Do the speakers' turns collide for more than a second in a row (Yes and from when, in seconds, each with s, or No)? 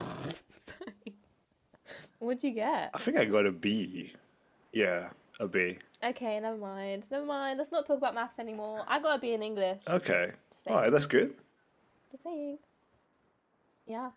No